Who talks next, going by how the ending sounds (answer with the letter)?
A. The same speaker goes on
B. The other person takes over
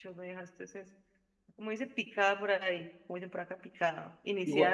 A